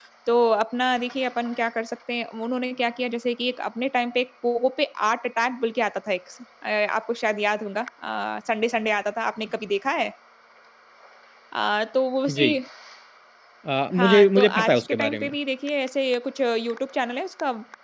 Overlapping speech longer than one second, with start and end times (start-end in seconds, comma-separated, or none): 14.0-15.3